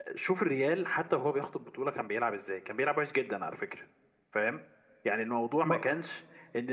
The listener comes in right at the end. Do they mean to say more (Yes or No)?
No